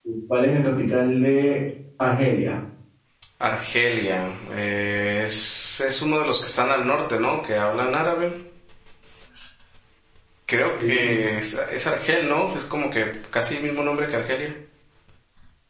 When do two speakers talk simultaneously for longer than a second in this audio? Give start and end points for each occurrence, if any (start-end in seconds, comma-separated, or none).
none